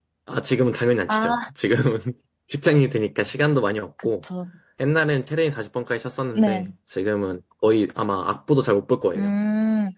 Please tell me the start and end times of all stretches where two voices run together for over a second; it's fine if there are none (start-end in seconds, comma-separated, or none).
none